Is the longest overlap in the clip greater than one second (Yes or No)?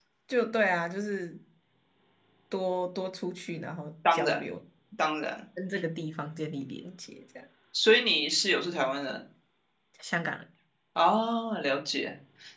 No